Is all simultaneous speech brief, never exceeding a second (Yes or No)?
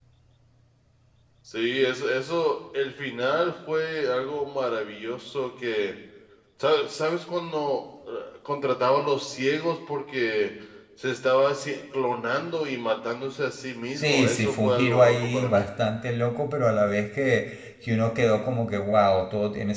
No